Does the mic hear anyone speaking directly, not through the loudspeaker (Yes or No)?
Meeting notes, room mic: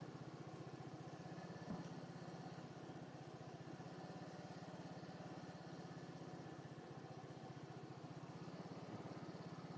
No